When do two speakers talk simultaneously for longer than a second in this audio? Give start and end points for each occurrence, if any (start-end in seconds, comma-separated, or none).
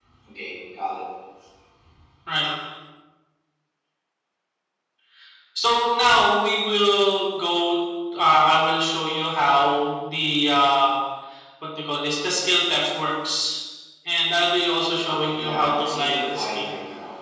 15.3-16.7